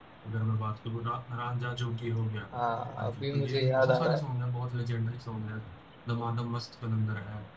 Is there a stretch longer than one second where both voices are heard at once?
Yes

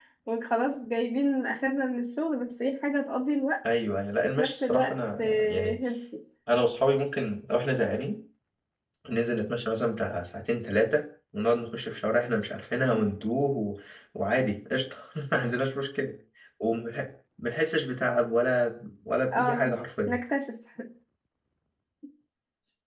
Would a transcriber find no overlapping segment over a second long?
No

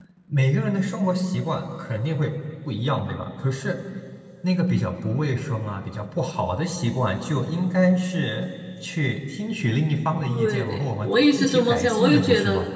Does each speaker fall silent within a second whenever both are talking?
No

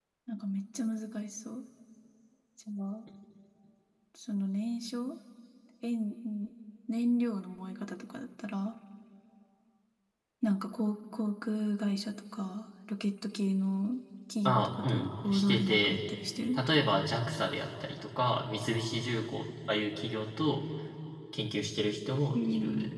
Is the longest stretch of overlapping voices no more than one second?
No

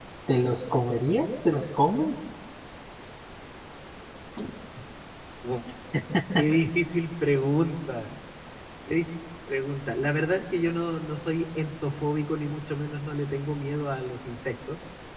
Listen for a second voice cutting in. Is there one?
No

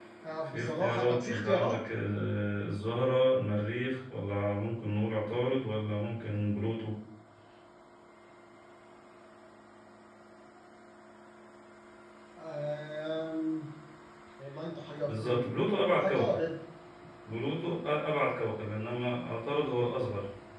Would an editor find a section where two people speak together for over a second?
Yes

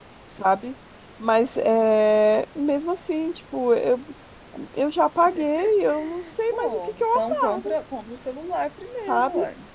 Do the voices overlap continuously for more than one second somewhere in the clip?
Yes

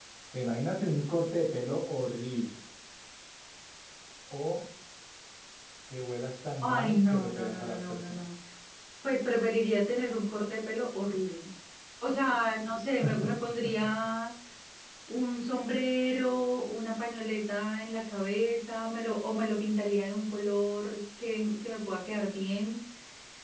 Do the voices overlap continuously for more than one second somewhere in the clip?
Yes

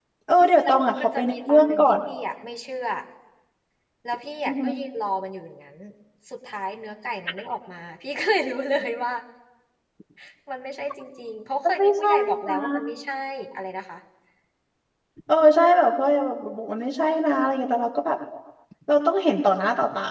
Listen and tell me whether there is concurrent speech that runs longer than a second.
Yes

